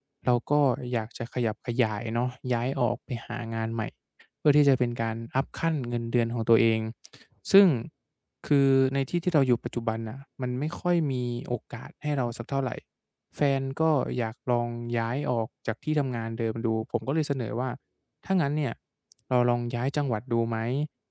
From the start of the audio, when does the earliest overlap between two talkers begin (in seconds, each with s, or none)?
none